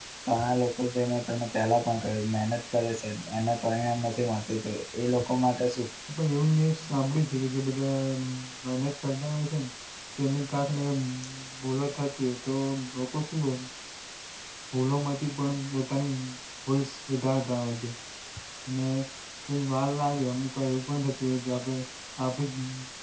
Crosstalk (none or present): none